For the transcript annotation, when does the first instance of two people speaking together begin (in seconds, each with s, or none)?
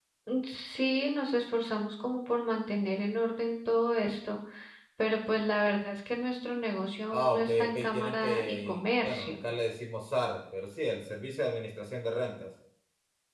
7.1 s